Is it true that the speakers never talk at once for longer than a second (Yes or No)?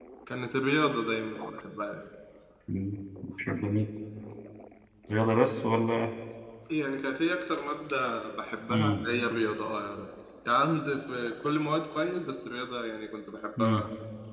Yes